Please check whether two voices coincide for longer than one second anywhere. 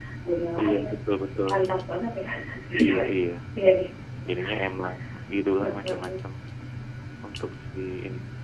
No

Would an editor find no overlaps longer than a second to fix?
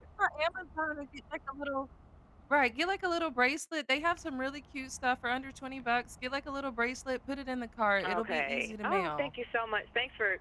No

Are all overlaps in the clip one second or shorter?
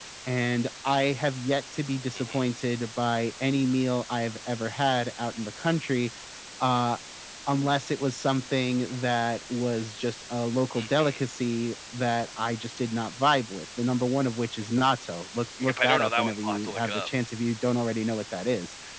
No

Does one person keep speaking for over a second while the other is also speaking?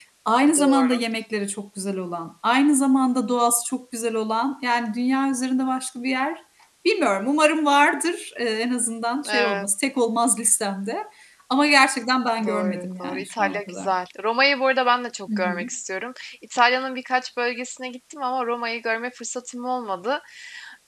Yes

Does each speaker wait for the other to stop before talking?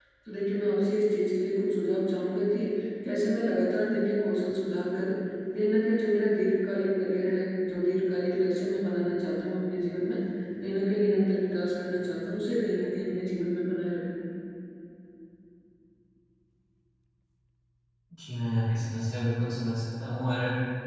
Yes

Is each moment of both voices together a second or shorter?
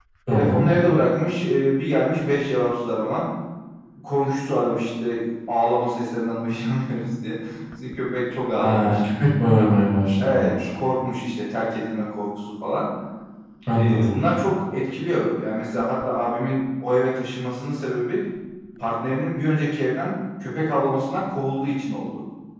Yes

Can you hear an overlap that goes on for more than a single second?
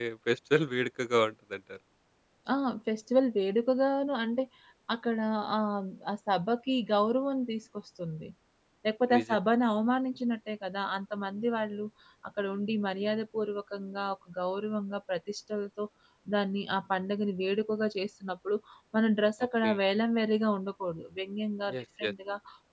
No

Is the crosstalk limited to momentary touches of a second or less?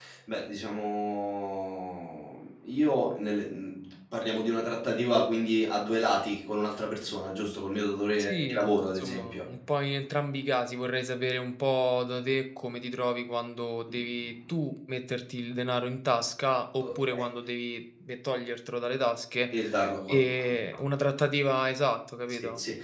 No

